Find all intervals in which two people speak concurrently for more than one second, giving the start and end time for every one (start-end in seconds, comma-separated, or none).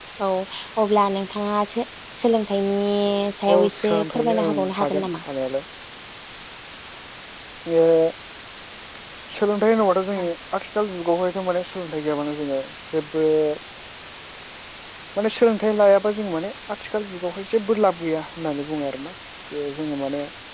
3.5-5.2